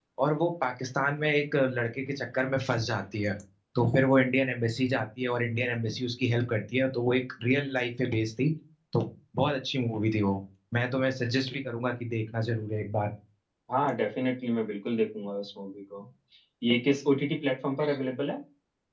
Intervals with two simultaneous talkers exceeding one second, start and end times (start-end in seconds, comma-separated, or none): none